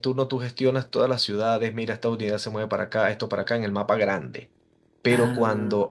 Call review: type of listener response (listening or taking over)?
listening